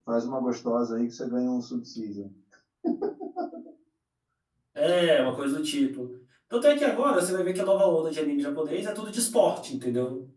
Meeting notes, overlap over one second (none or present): none